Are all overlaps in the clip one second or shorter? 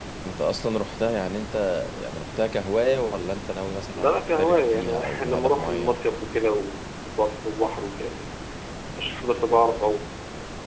No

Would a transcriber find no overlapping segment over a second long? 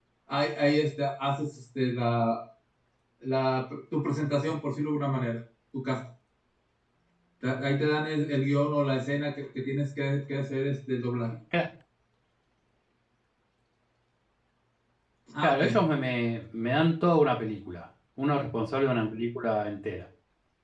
Yes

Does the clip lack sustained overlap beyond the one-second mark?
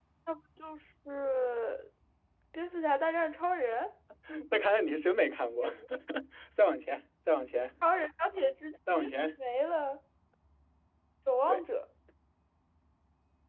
Yes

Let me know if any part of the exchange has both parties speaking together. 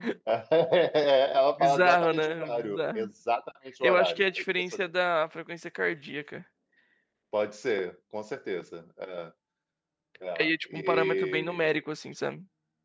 Yes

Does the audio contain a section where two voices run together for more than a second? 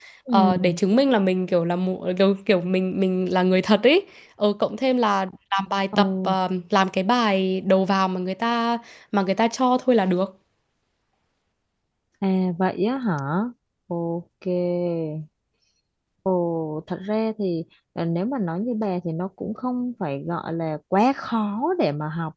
No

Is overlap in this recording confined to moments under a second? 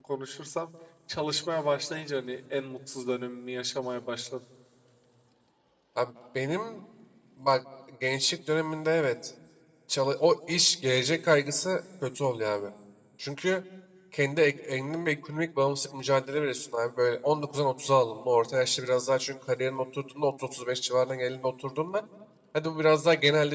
Yes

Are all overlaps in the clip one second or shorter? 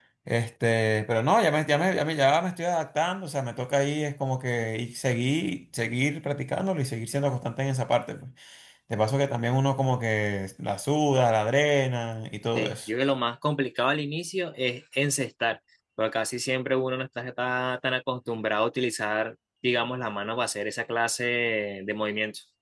Yes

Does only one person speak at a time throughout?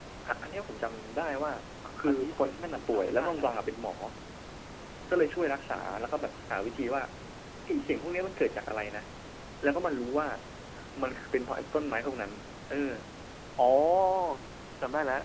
No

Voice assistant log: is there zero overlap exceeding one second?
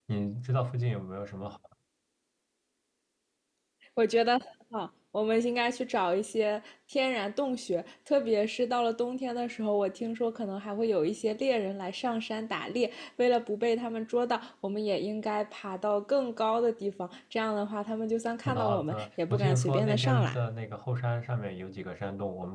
No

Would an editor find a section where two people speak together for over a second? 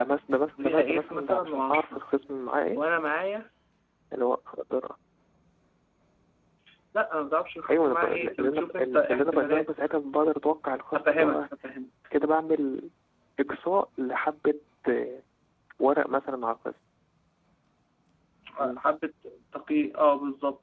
Yes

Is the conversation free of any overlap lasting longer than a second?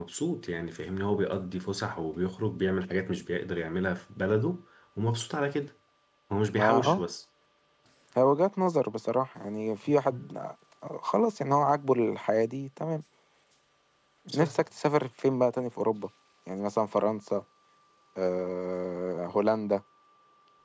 Yes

